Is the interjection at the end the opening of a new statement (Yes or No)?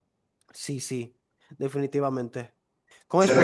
Yes